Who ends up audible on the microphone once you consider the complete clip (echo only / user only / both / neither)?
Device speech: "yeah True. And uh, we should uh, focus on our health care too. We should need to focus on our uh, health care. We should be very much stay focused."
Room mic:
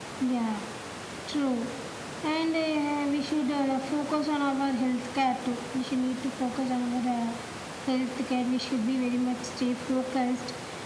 echo only